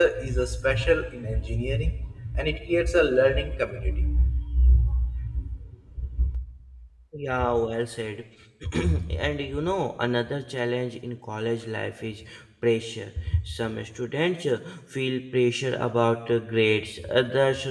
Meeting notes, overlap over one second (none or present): none